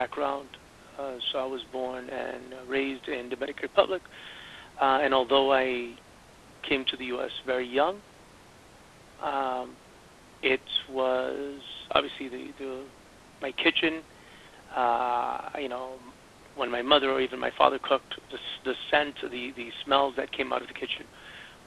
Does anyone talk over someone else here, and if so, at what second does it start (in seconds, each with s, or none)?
none